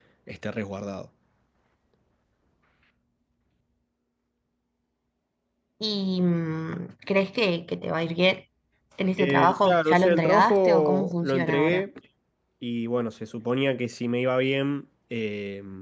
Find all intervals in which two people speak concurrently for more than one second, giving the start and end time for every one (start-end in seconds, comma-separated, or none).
9.2-11.8